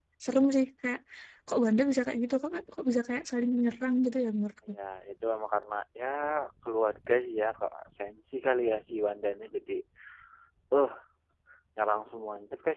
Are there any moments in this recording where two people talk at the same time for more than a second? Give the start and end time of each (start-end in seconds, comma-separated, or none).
none